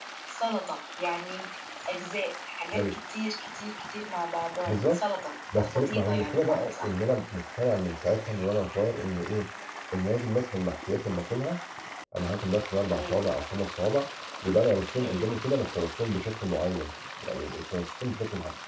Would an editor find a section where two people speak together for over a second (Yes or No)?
Yes